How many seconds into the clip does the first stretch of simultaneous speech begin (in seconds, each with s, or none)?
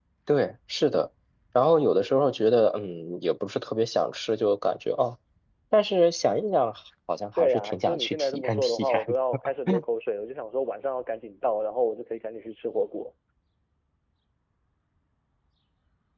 7.4 s